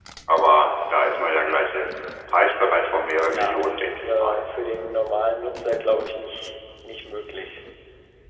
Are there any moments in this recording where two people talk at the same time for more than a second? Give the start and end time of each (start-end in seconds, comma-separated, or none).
3.1-4.4